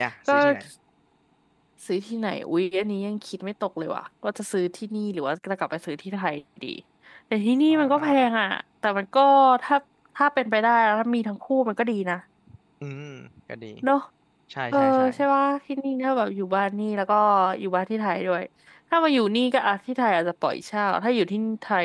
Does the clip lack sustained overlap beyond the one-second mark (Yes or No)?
Yes